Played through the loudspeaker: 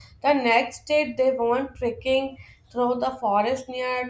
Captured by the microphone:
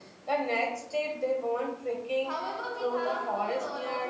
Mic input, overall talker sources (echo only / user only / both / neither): both